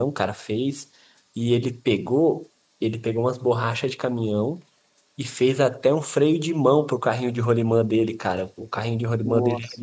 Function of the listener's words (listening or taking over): listening